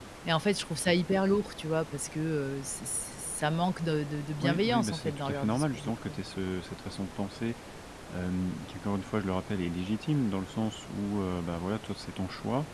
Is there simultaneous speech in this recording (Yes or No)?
Yes